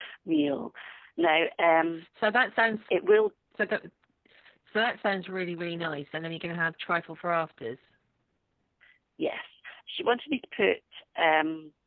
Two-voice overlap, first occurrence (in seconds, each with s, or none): none